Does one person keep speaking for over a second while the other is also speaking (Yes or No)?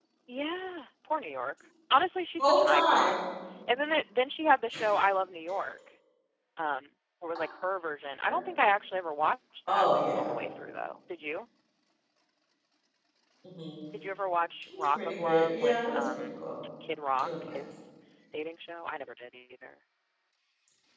Yes